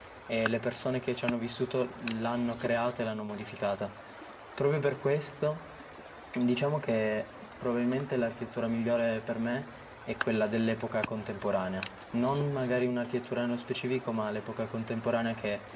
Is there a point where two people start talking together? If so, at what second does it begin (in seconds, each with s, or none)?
none